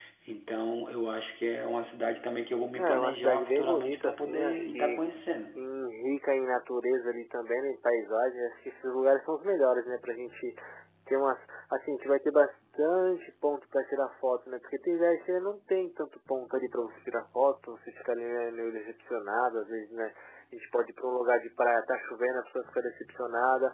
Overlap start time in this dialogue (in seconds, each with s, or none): 2.8 s